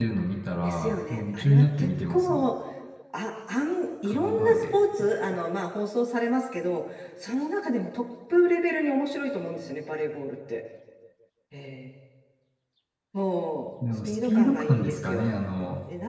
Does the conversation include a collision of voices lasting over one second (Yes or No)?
Yes